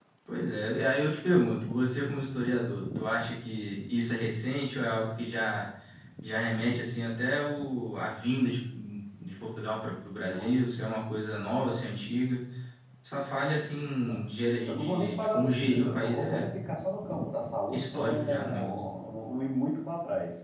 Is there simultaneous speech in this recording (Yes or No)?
Yes